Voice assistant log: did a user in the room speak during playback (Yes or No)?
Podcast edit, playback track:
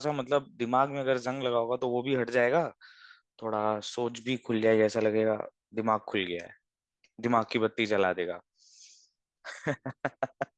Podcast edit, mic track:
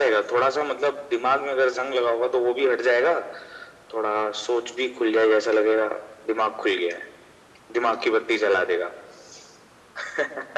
No